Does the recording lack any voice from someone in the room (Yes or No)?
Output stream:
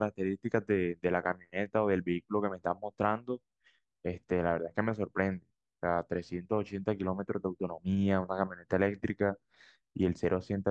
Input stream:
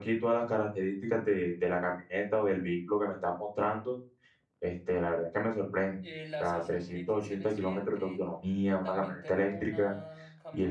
No